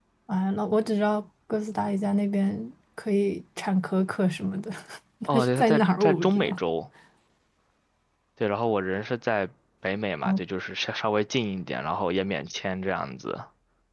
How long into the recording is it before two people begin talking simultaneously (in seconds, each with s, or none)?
5.3 s